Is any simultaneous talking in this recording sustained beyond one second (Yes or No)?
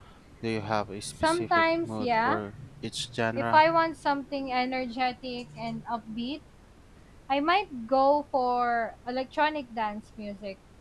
Yes